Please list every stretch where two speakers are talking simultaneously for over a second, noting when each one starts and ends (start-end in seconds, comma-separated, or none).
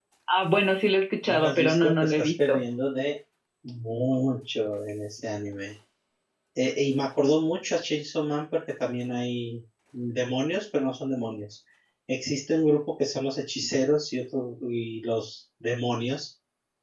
1.2-2.6